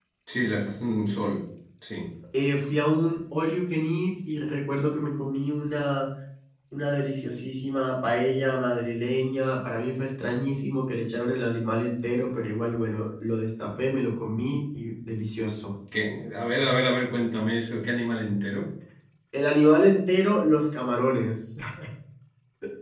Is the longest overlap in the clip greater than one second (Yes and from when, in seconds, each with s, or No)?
No